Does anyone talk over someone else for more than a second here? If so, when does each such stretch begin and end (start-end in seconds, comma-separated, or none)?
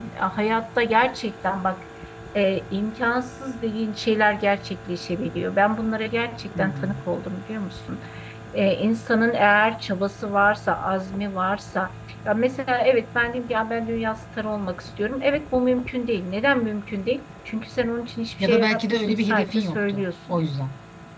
18.4-20.4